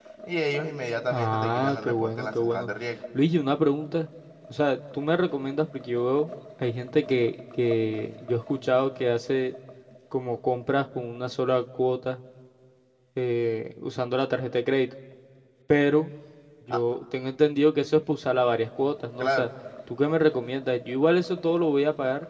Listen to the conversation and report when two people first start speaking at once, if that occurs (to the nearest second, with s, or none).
1 s